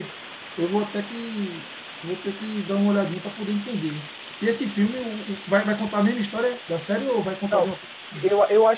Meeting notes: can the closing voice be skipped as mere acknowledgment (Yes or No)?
No